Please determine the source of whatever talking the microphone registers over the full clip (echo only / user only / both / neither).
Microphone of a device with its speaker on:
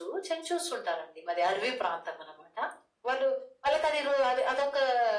echo only